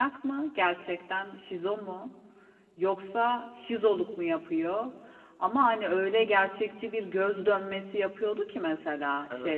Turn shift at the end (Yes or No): No